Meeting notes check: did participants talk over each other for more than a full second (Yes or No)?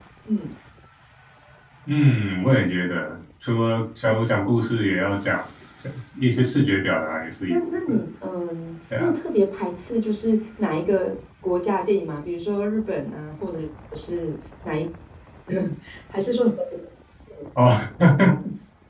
No